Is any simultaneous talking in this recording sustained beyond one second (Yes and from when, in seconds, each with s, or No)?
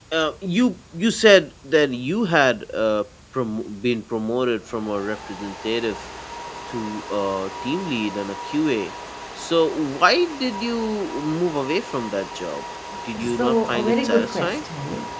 Yes, from 13.2 s